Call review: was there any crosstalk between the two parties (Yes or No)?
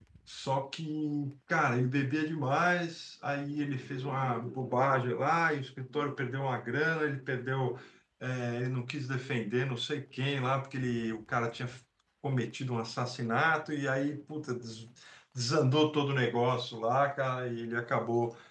No